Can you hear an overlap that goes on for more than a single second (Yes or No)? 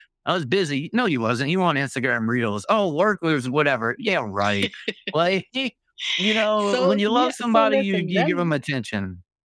Yes